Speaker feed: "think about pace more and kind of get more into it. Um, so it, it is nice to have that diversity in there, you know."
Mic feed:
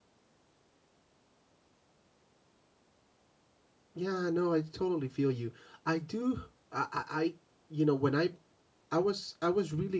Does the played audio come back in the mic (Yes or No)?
No